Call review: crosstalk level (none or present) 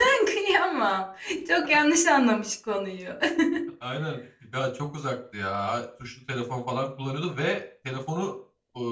none